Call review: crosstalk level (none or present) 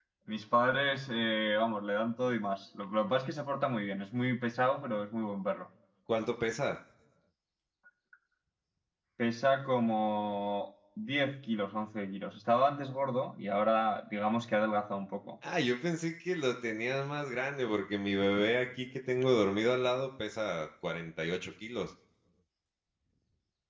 none